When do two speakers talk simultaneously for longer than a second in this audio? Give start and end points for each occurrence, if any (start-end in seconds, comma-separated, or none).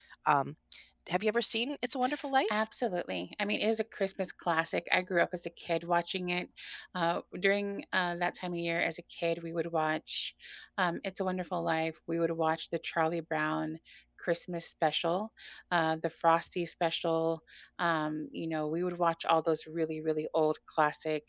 none